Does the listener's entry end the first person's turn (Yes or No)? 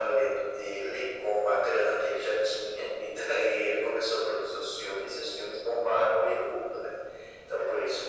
No